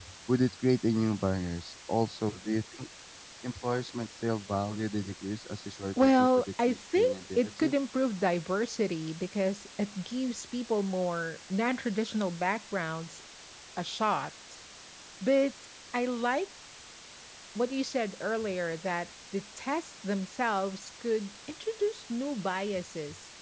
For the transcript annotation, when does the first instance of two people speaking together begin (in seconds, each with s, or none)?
6.0 s